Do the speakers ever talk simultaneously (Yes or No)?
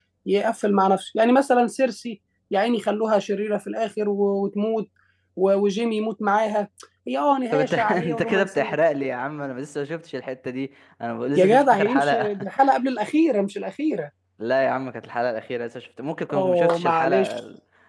Yes